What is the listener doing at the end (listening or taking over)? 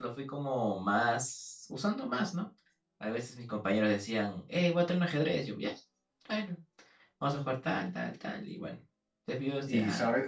taking over